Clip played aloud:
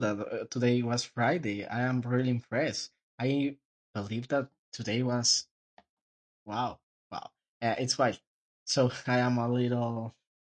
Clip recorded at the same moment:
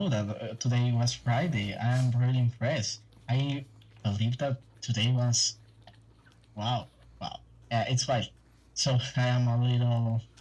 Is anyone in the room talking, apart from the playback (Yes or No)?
No